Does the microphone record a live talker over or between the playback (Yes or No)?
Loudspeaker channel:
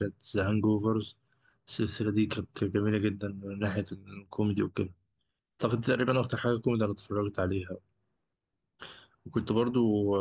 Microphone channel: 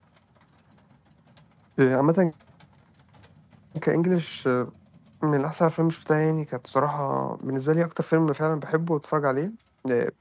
Yes